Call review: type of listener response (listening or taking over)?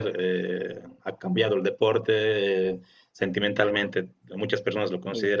listening